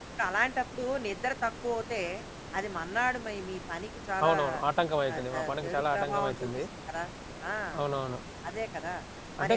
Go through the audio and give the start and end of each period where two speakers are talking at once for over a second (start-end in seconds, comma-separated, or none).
5.1-6.6